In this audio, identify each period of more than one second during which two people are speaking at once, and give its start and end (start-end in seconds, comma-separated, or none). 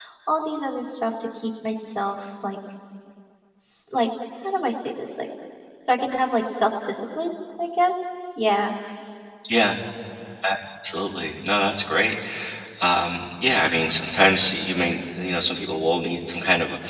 none